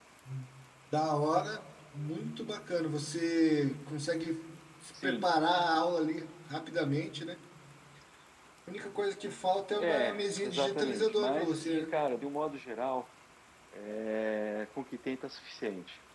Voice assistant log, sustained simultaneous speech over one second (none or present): present